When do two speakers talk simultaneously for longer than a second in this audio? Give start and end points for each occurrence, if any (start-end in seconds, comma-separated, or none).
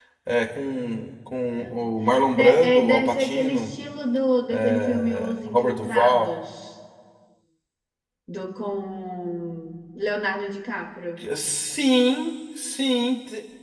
2.3-3.7, 4.8-6.3